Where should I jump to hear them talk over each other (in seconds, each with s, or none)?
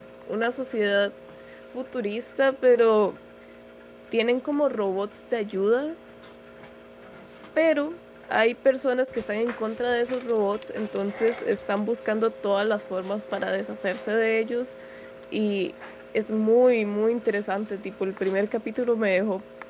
none